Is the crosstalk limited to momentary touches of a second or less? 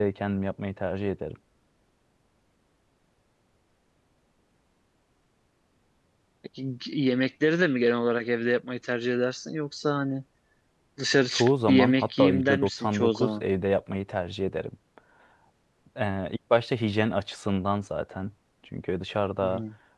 No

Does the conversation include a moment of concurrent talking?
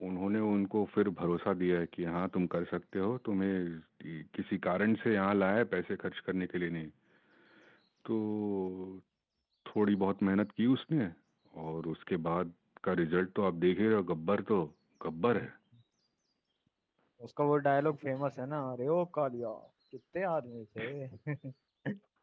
No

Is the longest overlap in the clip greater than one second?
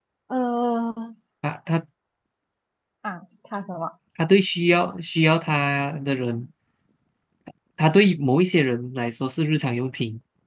No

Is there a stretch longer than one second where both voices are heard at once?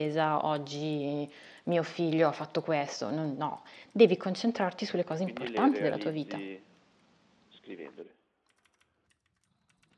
Yes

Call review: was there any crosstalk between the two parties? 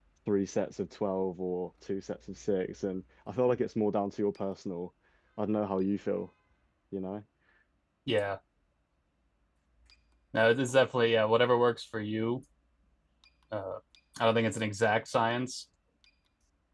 No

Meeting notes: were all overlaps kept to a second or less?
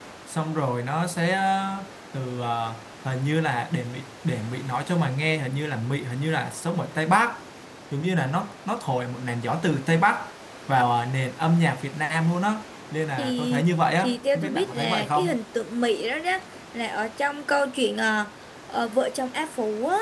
No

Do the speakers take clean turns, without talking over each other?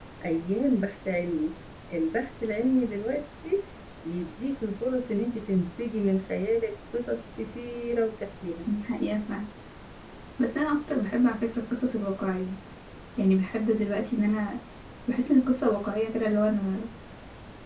Yes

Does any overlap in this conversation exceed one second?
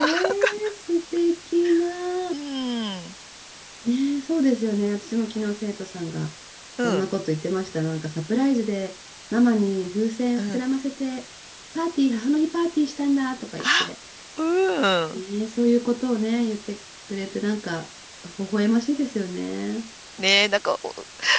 No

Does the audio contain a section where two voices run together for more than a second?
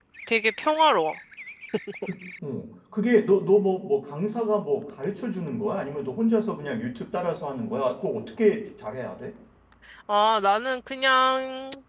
No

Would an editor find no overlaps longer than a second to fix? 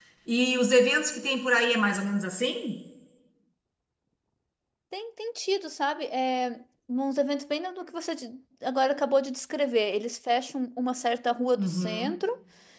Yes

